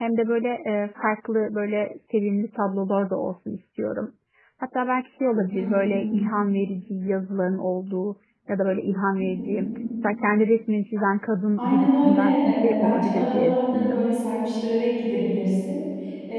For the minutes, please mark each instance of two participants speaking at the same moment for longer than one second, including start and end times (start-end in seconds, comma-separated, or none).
11.6-14.1